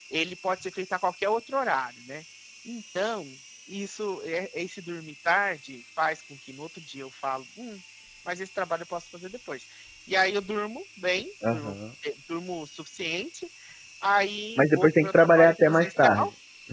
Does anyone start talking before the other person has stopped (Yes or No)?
Yes